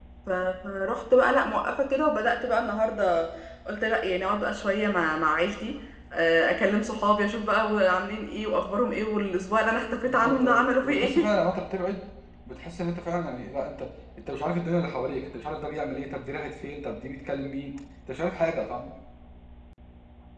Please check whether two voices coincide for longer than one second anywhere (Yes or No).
Yes